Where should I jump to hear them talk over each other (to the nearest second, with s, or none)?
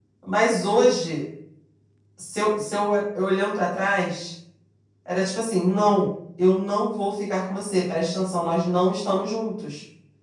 none